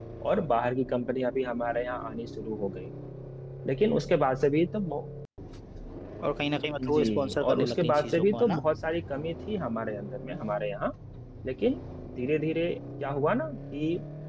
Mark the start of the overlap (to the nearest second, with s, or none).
7 s